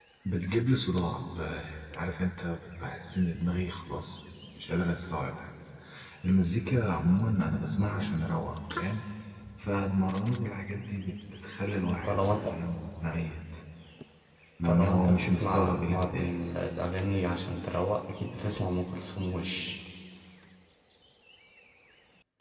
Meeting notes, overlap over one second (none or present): present